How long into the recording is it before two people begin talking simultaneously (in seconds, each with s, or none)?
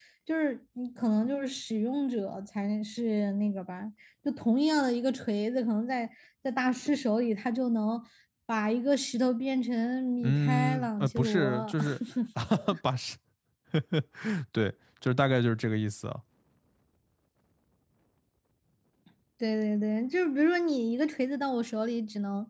10.2 s